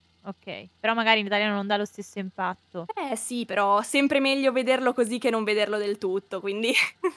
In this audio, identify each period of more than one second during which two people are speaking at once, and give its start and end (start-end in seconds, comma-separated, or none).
none